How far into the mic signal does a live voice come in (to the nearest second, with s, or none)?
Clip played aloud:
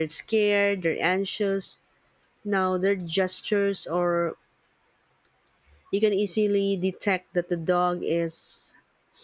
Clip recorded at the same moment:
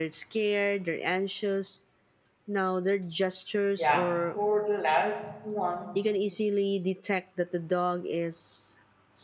4 s